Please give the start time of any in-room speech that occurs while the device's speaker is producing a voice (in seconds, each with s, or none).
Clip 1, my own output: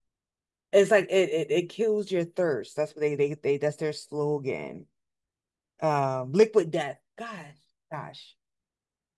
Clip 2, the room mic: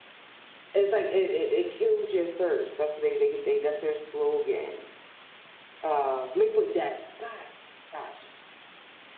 none